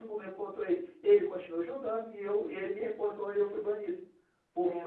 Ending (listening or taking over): listening